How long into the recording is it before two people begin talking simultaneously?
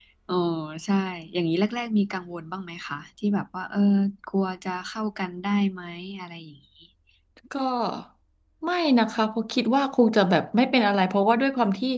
none

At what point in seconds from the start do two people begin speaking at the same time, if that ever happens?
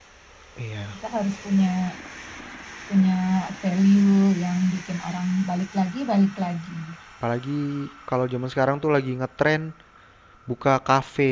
none

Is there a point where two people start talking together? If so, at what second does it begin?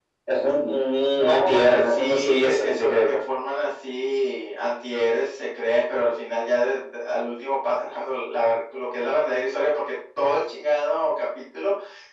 1.2 s

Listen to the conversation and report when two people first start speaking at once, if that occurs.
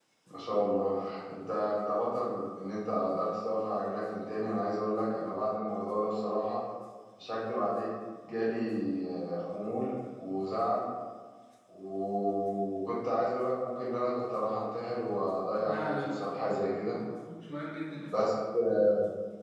15.7 s

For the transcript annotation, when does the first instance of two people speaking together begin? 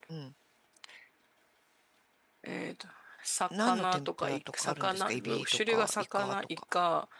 3.5 s

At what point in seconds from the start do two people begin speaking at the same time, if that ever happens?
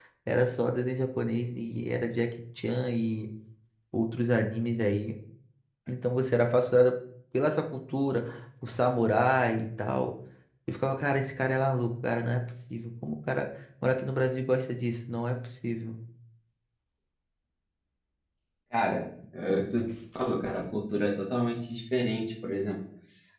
none

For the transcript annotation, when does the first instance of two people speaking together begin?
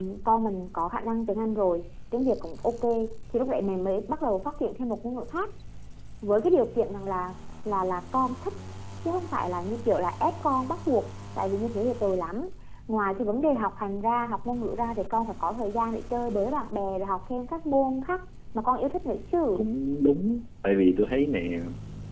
none

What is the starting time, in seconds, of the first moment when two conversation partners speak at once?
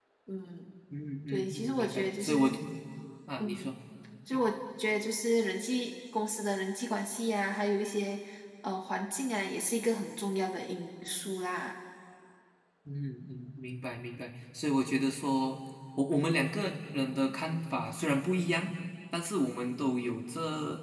1.3 s

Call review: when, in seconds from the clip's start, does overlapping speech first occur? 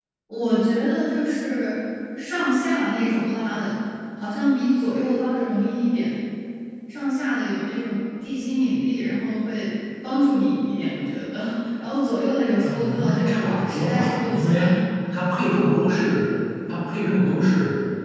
12.6 s

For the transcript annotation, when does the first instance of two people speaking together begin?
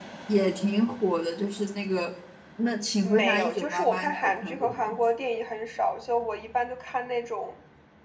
3.0 s

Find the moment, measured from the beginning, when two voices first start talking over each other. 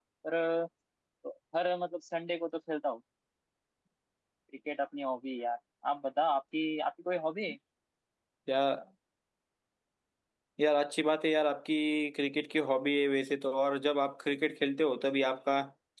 none

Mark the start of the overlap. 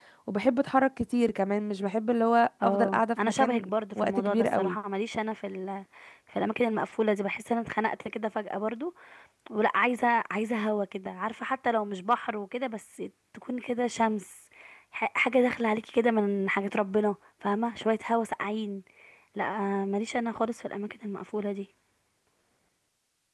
2.6 s

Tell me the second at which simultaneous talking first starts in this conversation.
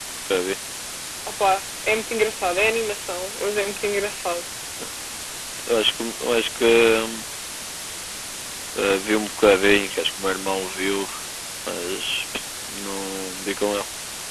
none

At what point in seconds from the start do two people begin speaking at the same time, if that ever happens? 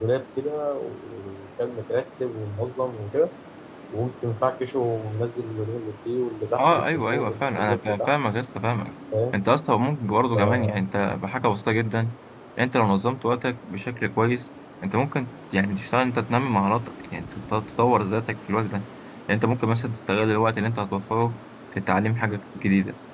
6.6 s

